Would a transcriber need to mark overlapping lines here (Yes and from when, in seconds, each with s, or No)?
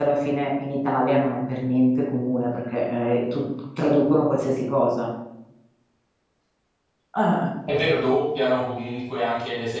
No